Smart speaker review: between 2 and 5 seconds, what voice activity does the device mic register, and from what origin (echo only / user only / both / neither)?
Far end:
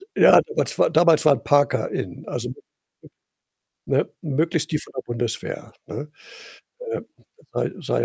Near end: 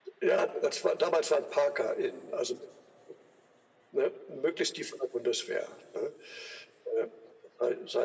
echo only